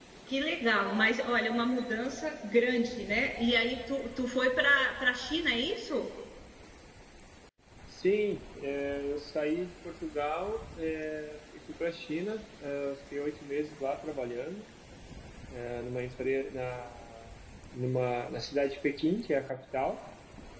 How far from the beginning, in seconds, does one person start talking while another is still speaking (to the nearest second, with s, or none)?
none